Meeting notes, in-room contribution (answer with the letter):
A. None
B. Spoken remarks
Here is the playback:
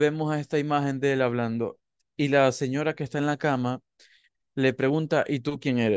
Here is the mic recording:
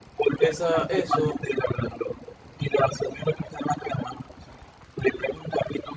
B